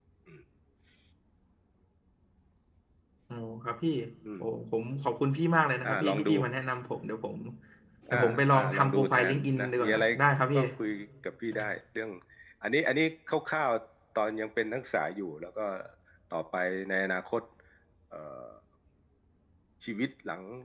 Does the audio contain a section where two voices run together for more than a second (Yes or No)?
Yes